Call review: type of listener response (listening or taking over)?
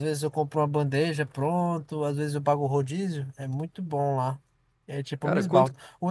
listening